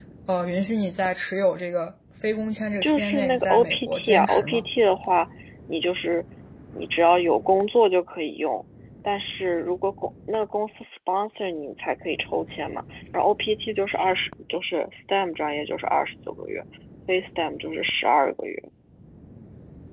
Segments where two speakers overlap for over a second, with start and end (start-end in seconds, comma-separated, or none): 2.8-4.6